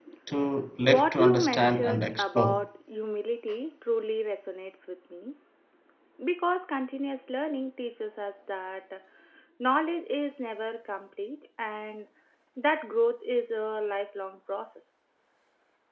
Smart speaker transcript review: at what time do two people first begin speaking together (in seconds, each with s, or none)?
0.8 s